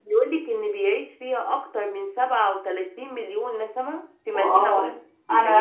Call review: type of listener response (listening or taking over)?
taking over